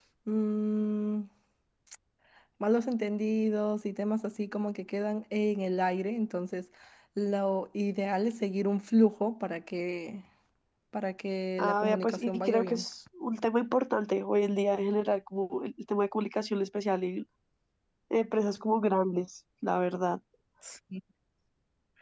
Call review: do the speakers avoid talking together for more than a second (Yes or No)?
No